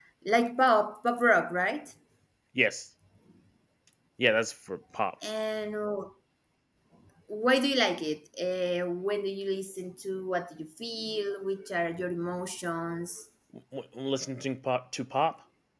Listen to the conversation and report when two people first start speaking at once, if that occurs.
none

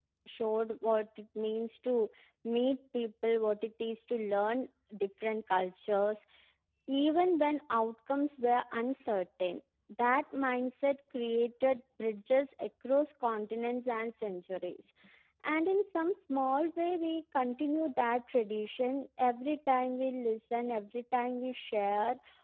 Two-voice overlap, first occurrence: none

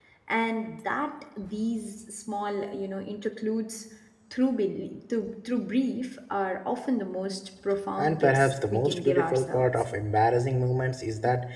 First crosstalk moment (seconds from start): 8 s

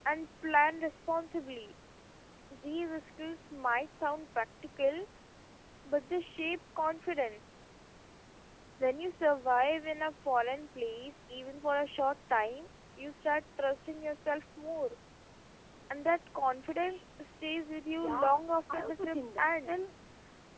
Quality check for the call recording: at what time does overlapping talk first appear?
18 s

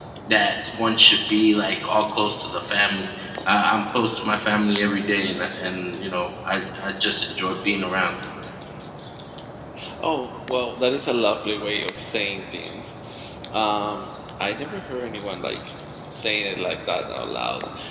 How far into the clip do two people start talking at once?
none

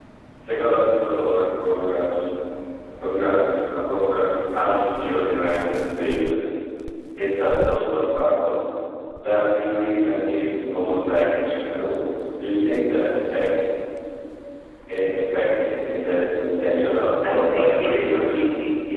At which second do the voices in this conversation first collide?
17 s

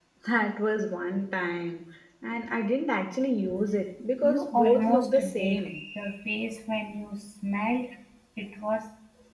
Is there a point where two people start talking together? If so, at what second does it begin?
4 s

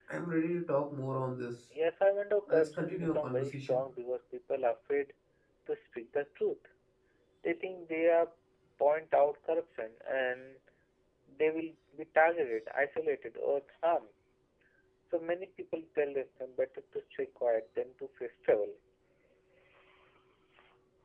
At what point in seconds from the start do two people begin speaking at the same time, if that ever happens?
2 s

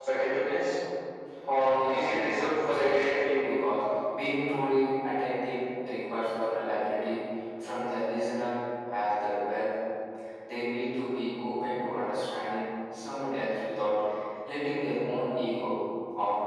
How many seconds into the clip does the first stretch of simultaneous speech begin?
2 s

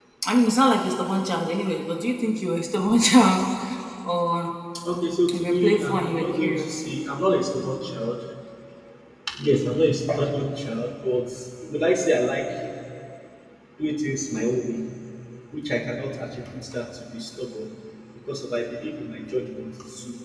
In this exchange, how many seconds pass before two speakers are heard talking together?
5 s

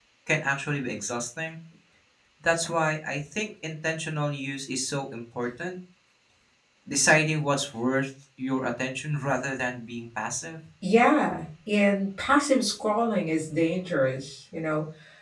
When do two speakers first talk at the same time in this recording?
none

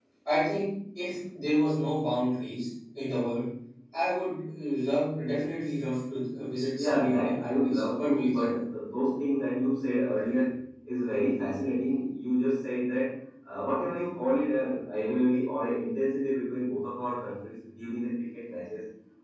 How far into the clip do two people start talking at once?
7 s

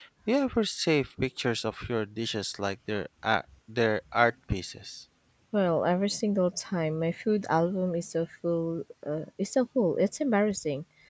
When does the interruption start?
none

